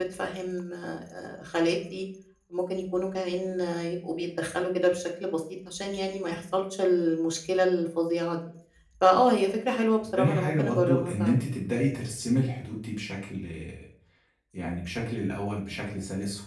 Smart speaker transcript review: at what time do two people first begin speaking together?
10.2 s

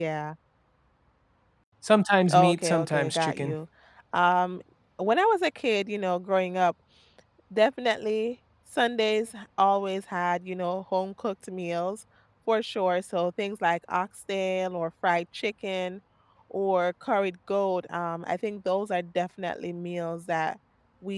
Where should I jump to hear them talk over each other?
2.3 s

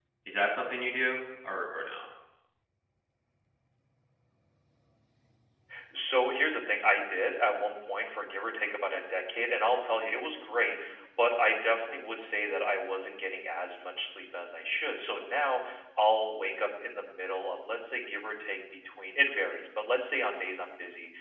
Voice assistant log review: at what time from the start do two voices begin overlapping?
none

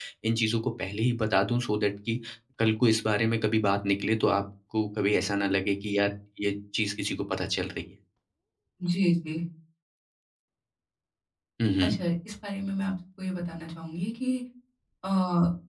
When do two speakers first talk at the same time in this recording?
none

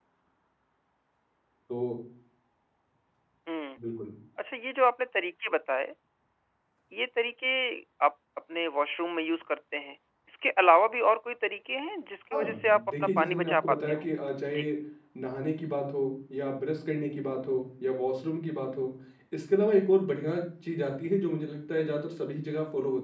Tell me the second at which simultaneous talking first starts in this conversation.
12.3 s

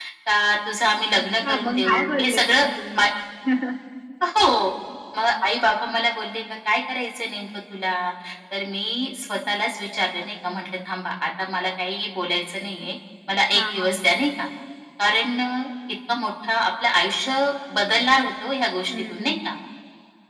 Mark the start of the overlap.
1.2 s

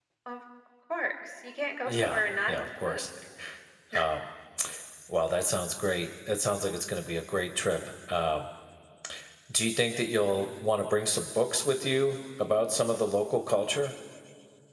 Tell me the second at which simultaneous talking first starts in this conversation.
1.9 s

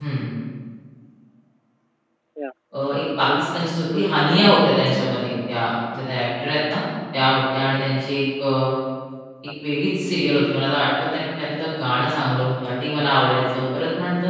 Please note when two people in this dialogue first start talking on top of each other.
3.4 s

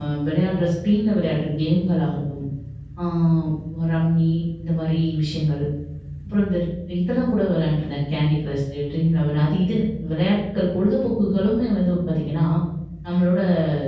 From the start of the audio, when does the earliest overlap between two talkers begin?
none

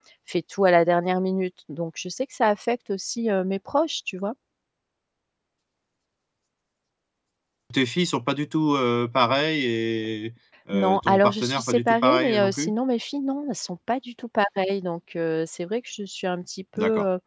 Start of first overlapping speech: 10.7 s

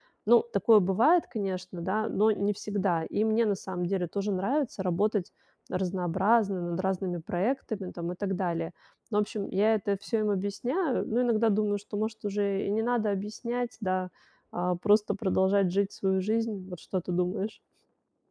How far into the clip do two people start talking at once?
none

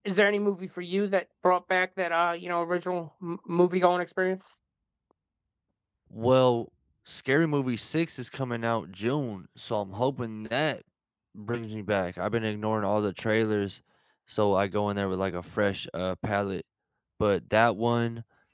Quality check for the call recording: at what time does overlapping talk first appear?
none

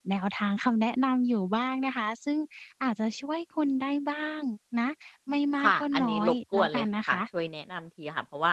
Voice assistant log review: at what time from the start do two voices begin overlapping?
5.6 s

